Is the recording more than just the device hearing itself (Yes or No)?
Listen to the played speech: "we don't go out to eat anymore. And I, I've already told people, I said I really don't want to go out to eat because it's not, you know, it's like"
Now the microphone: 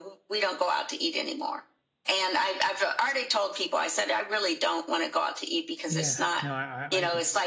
Yes